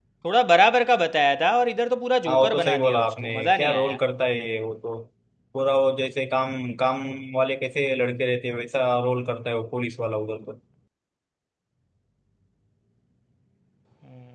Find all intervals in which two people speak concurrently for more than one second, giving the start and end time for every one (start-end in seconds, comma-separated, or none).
2.3-4.0